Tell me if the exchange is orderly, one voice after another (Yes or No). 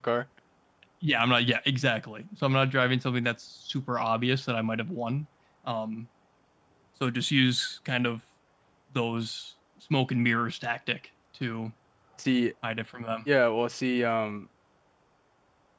Yes